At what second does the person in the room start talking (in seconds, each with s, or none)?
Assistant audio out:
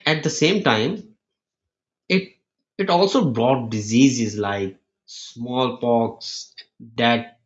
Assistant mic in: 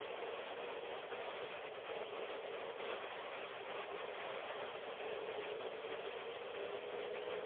none